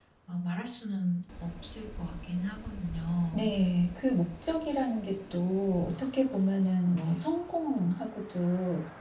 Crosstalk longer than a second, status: none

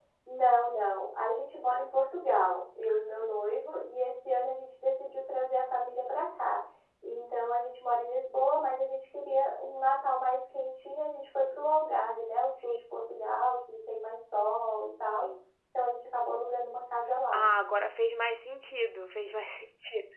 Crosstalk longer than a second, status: none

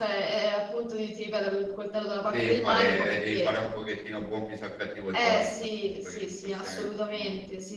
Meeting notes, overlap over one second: present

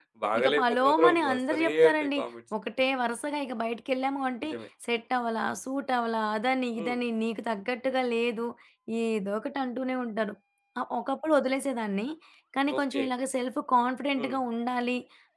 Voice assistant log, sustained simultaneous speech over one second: present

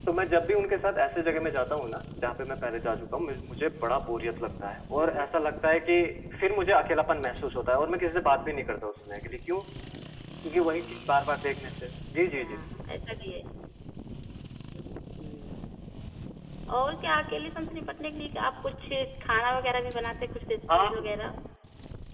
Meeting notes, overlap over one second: none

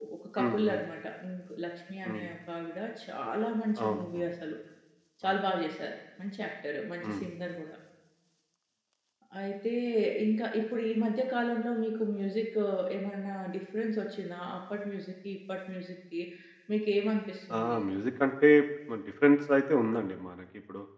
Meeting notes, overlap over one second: none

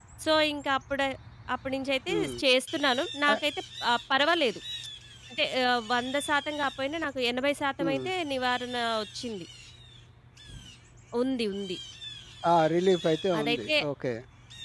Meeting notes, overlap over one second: none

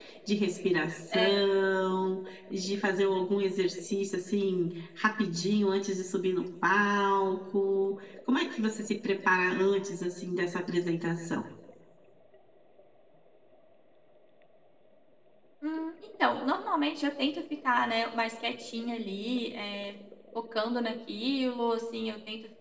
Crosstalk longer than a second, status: none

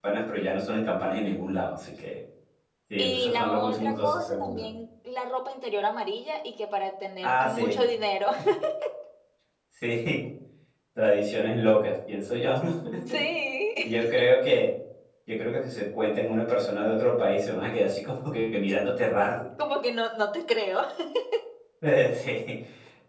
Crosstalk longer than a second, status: present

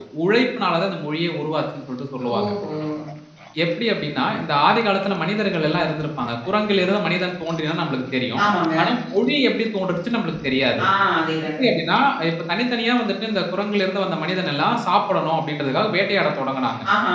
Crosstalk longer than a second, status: none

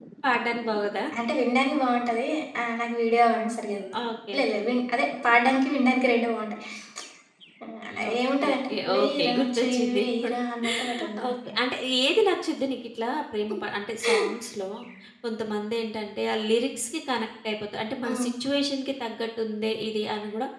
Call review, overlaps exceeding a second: present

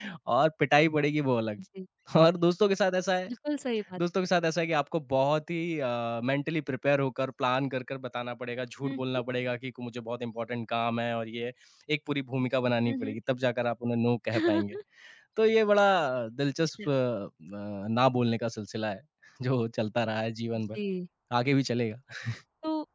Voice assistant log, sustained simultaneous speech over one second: none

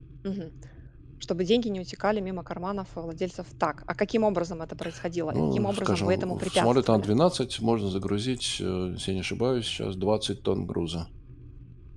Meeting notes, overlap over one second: present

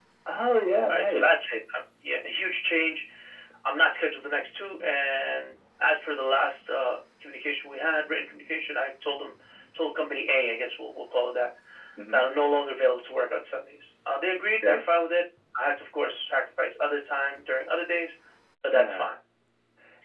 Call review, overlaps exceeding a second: none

